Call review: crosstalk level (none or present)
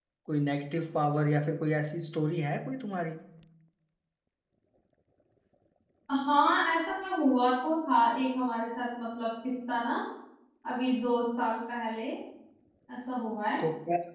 none